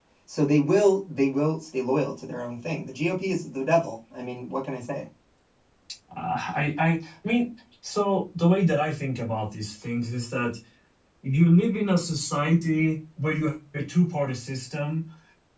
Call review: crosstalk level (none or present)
none